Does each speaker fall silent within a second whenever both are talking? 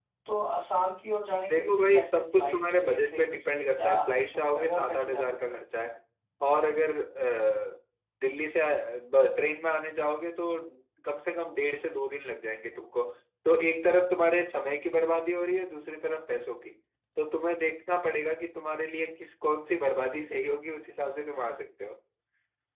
No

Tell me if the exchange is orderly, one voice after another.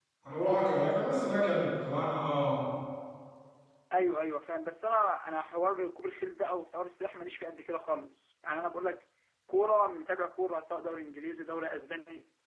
Yes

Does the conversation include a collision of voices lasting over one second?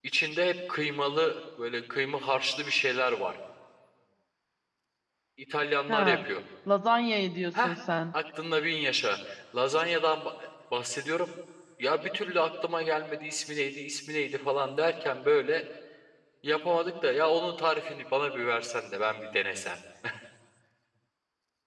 No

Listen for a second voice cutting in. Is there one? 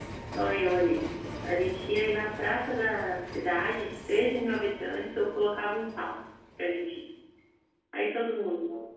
No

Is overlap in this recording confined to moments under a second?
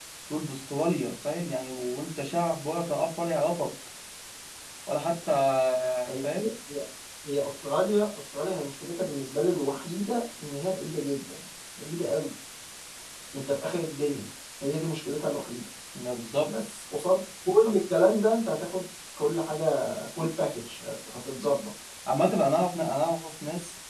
Yes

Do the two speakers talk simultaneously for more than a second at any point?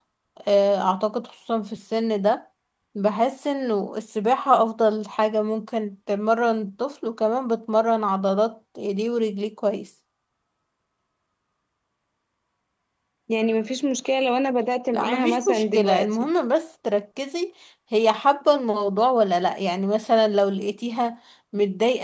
Yes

